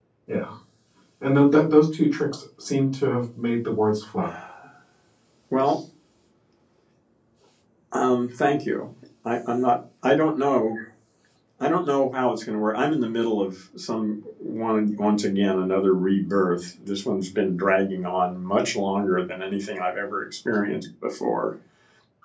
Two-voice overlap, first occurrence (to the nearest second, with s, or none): none